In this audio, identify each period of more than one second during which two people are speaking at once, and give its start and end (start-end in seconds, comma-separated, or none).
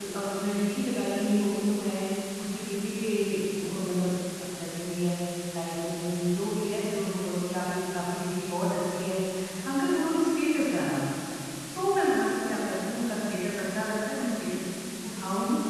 none